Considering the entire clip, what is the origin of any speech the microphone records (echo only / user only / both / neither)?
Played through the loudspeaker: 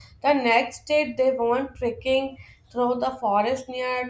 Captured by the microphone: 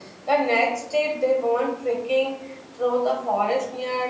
echo only